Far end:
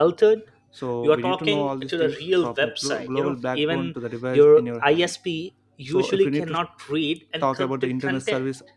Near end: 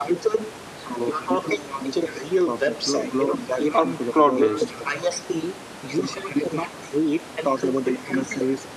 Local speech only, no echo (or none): or cloud based